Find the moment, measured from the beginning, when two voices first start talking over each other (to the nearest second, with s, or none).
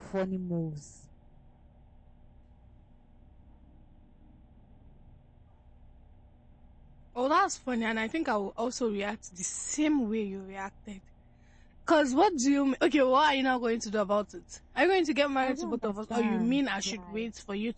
15 s